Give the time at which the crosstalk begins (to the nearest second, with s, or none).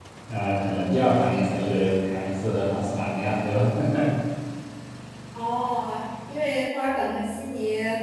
none